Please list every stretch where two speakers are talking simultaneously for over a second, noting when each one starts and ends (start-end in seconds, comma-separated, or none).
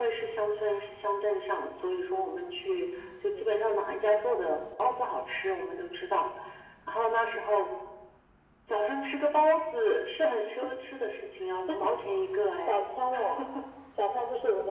none